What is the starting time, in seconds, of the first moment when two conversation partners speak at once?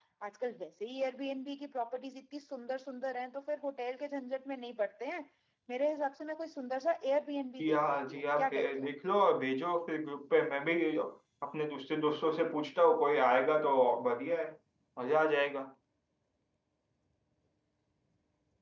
7.6 s

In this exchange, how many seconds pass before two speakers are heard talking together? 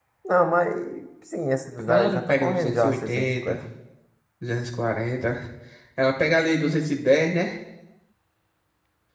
1.9 s

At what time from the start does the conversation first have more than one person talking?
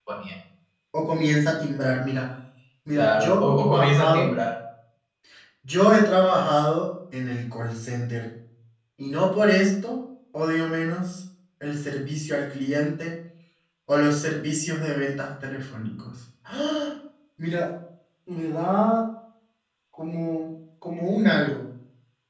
3.0 s

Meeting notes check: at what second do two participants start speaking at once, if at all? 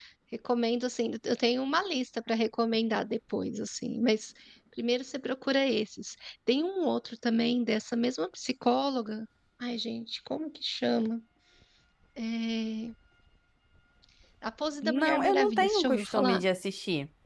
14.8 s

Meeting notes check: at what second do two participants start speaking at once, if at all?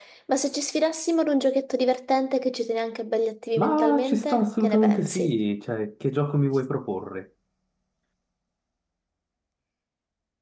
3.6 s

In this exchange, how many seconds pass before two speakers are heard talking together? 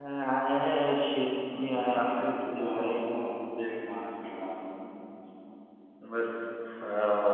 1.7 s

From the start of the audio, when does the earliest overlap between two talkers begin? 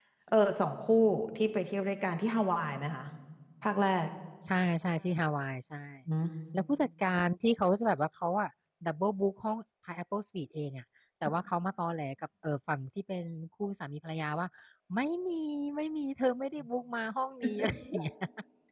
none

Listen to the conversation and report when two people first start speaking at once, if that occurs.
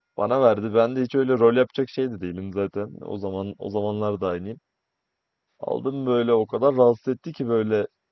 none

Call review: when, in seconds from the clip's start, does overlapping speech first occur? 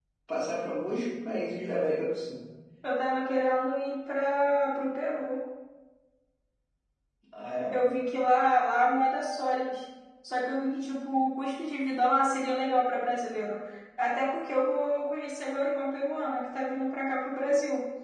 none

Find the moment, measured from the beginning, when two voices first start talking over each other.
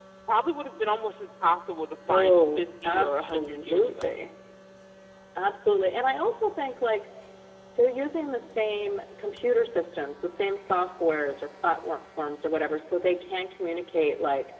2.1 s

